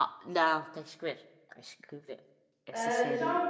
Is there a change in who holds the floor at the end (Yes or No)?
Yes